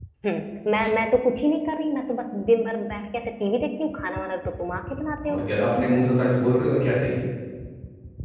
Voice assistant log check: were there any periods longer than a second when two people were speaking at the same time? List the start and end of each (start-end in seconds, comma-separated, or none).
none